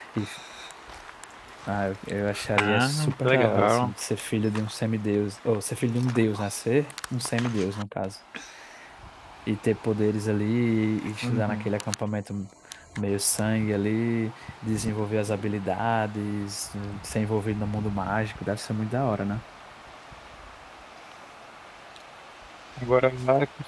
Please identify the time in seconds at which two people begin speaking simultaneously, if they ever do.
2.6 s

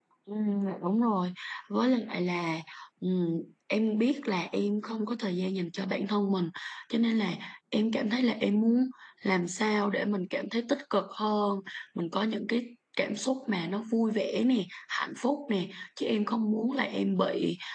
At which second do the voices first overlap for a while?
none

